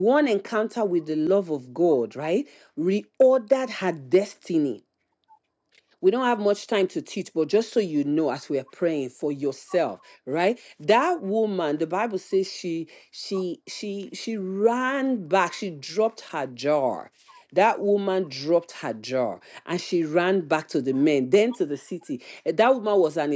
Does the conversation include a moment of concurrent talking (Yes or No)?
No